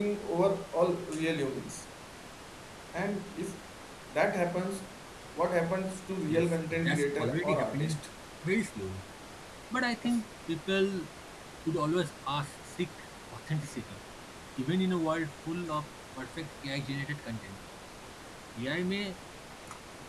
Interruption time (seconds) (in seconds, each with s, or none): 6.3 s